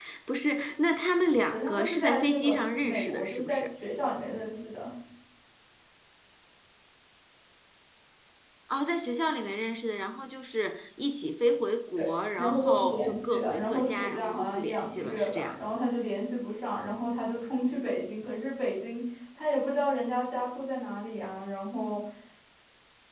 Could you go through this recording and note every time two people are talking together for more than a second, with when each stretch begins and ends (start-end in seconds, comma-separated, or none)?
1.3-3.6, 12.4-15.5